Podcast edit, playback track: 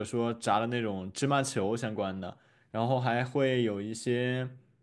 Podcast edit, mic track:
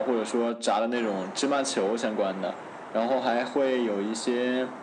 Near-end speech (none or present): none